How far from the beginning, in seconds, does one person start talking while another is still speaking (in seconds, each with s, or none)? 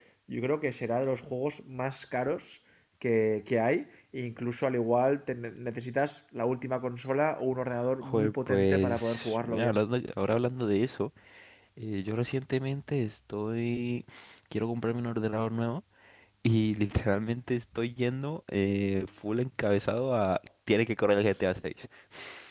8.0 s